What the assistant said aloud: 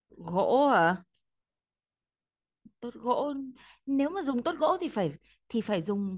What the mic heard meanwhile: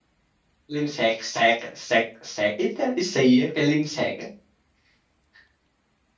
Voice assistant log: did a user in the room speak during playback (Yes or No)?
Yes